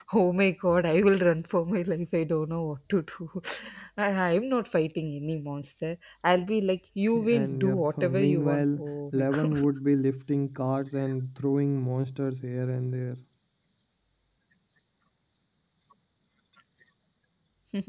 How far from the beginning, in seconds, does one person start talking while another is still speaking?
7.2 s

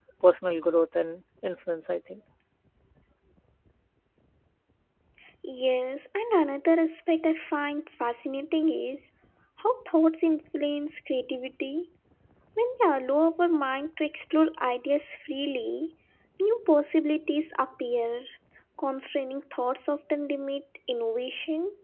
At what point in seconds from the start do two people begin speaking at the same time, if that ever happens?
none

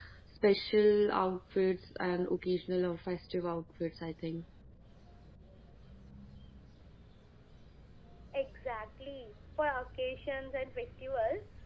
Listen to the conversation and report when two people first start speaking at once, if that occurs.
none

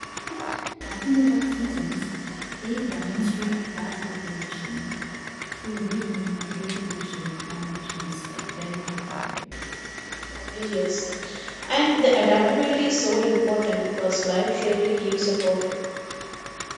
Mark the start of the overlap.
none

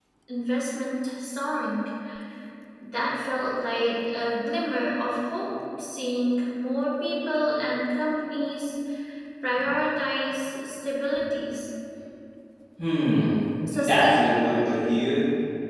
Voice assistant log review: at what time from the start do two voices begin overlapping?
13.7 s

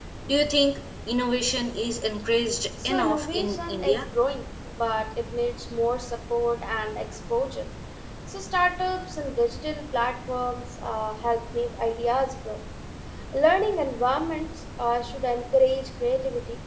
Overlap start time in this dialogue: 2.8 s

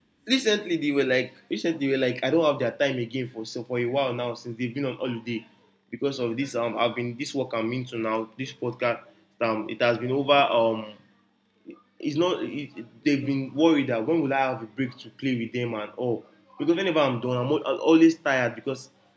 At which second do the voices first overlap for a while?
none

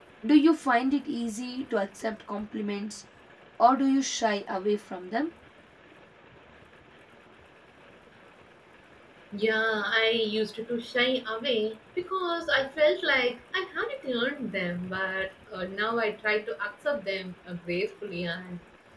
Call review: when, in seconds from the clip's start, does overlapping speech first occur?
none

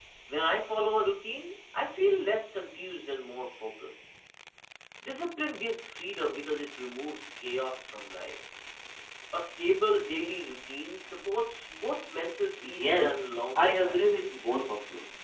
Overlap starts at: 12.6 s

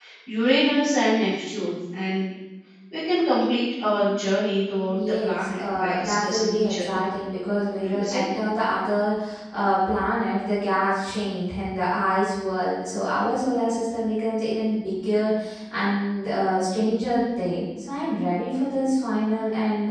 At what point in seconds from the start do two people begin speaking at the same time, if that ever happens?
4.9 s

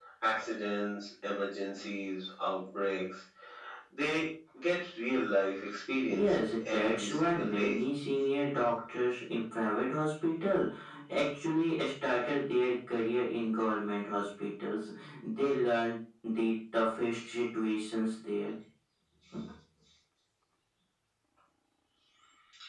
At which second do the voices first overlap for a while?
6.0 s

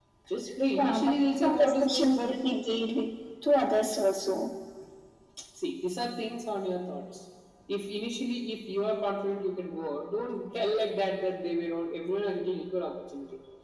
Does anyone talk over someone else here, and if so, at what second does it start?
0.8 s

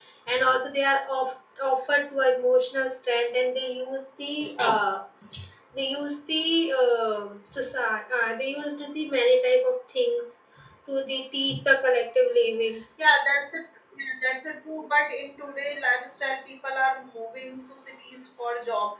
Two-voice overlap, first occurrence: none

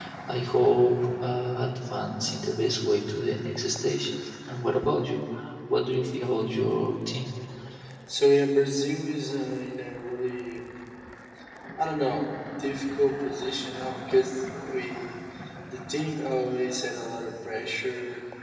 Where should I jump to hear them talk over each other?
none

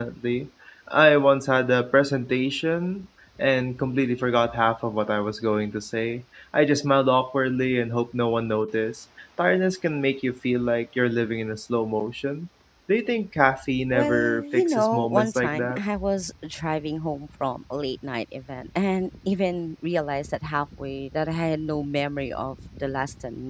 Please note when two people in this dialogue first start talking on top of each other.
13.9 s

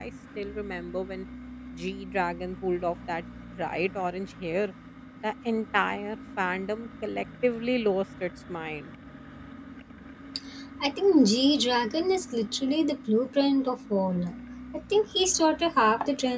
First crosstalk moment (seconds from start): none

